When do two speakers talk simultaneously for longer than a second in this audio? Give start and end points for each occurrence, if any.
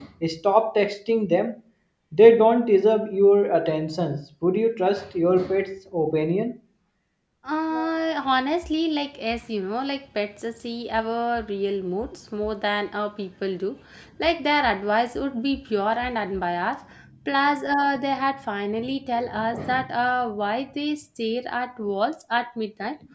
none

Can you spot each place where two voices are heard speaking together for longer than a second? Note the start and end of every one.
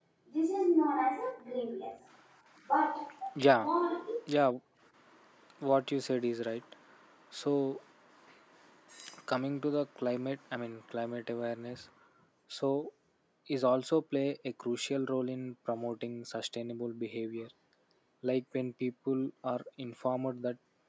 none

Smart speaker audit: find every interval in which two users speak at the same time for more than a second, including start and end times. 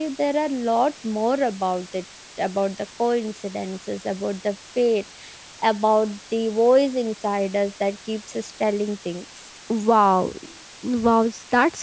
none

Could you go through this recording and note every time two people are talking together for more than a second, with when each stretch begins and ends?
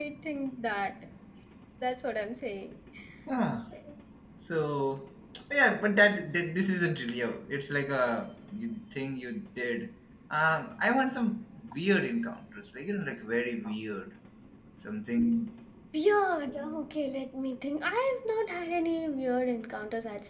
none

